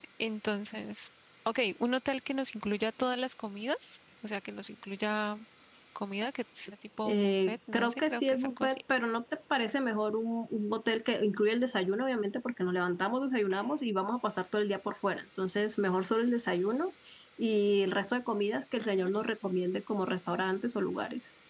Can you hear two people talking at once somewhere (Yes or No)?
Yes